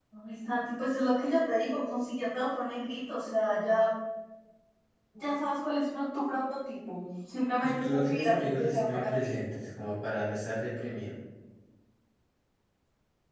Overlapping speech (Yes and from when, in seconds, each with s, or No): Yes, from 7.6 s